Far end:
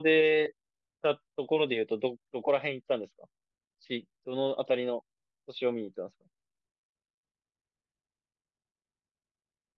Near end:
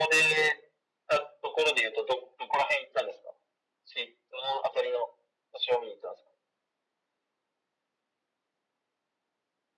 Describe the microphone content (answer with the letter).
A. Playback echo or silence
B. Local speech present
A